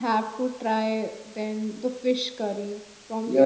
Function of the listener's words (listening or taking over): taking over